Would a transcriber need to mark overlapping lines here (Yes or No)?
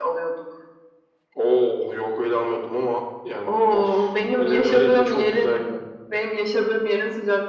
Yes